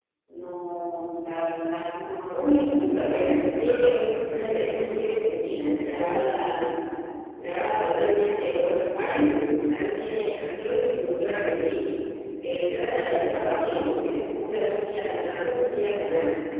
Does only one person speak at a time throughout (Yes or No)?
No